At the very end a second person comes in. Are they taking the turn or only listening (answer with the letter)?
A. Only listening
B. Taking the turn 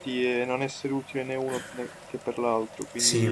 B